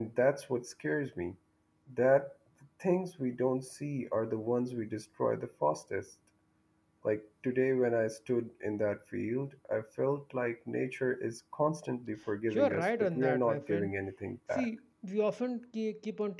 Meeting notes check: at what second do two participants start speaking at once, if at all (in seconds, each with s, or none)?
12.5 s